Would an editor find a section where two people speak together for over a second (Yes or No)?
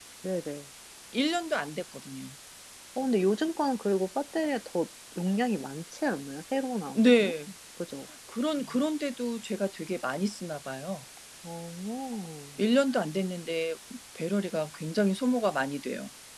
No